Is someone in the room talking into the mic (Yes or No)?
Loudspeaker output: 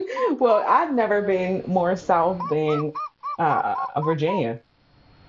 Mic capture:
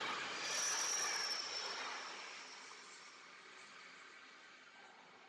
No